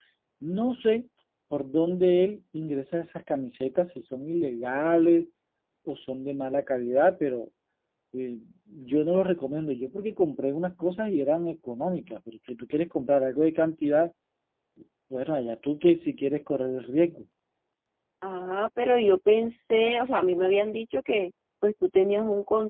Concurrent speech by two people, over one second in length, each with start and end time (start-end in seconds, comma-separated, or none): none